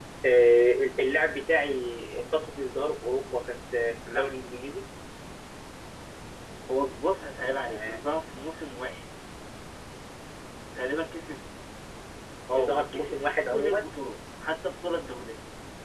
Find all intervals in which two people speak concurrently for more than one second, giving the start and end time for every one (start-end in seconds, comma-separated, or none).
12.6-13.9